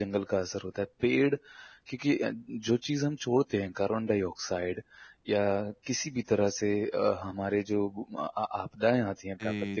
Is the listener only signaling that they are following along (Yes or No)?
Yes